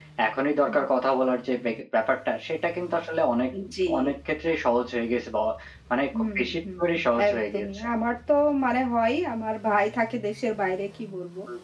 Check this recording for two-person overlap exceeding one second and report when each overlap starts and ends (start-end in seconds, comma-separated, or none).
6.1-7.8